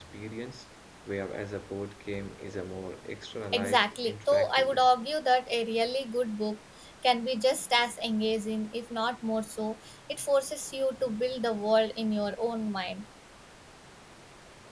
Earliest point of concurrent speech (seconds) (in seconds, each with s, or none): 3.5 s